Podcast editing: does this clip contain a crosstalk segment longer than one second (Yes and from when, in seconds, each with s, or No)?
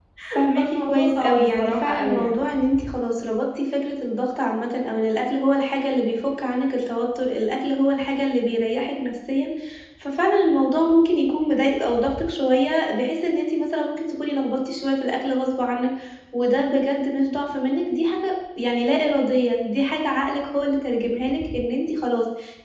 Yes, from 0.6 s